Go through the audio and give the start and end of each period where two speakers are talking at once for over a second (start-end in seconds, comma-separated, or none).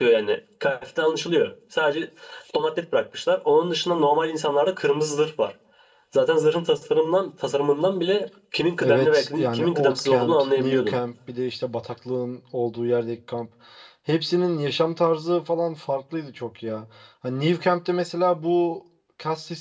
8.8-11.0